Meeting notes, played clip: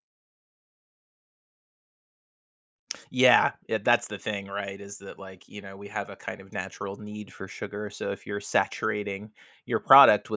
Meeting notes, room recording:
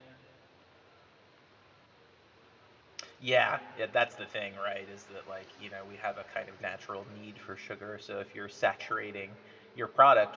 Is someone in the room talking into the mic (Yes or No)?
No